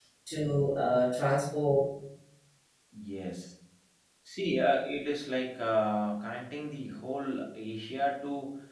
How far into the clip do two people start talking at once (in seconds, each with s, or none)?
none